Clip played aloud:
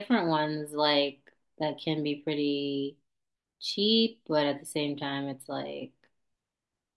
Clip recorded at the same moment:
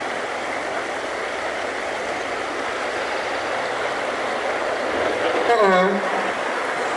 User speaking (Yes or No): Yes